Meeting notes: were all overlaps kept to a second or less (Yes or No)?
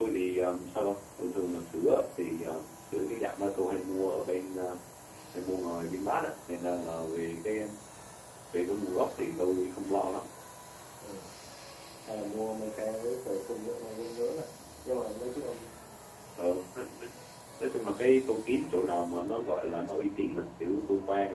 Yes